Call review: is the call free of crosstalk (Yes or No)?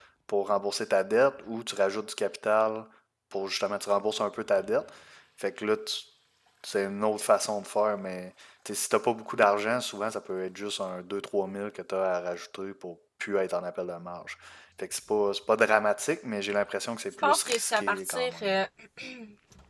No